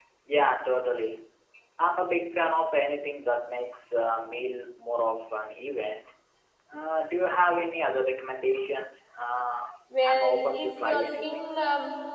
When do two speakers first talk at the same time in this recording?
9.9 s

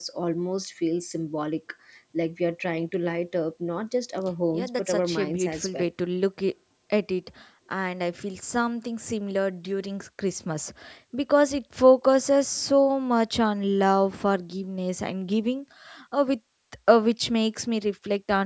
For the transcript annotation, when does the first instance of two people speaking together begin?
4.5 s

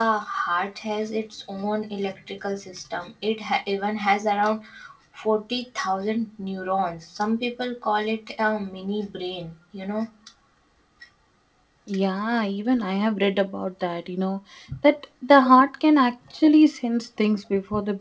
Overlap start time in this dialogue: none

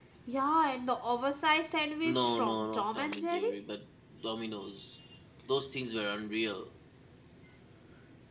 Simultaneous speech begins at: 2.0 s

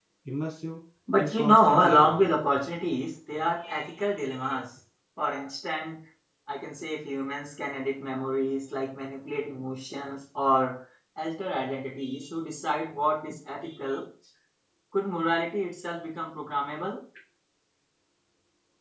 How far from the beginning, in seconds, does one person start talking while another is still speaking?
1.2 s

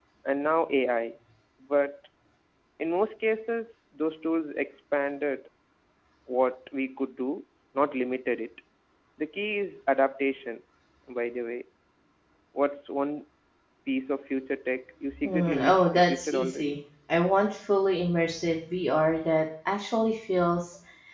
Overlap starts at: 15.2 s

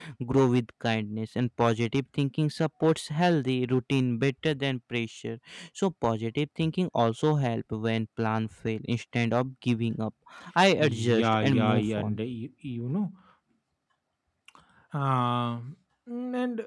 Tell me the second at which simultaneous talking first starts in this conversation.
10.8 s

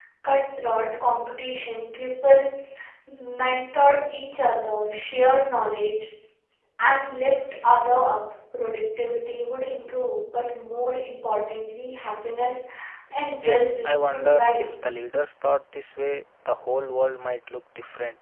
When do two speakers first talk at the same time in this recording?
13.4 s

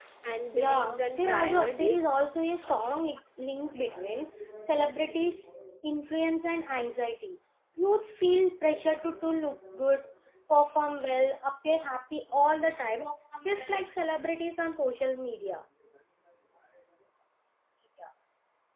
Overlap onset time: 0.5 s

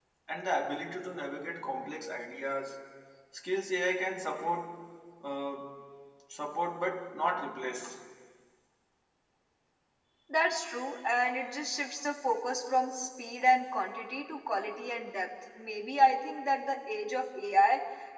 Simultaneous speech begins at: none

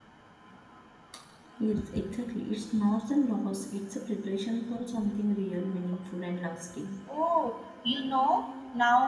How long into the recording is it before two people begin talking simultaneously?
none

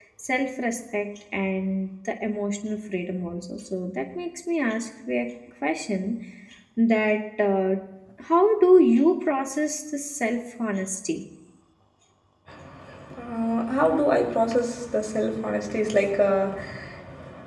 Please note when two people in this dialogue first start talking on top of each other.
none

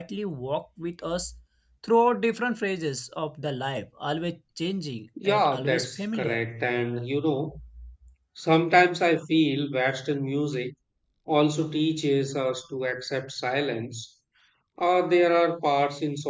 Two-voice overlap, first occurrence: 5.2 s

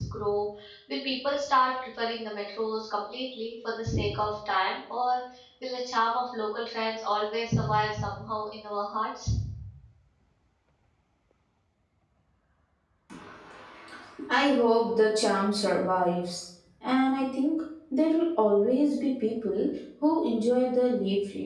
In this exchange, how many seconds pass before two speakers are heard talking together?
none

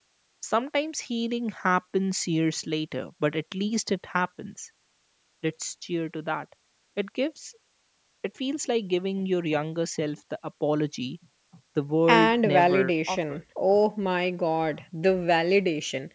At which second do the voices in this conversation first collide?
12.1 s

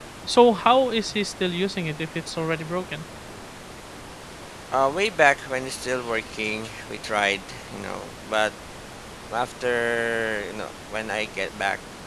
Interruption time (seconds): none

